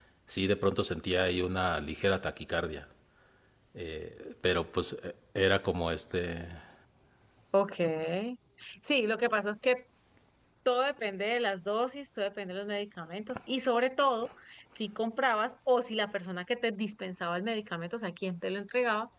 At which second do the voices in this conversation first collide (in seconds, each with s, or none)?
none